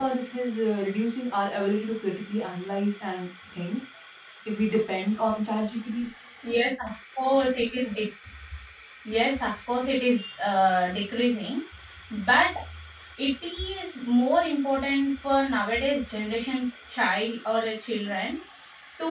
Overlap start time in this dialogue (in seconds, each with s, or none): none